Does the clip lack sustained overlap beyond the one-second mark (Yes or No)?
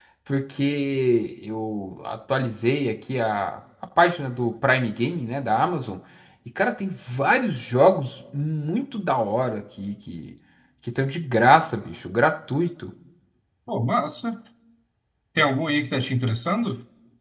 Yes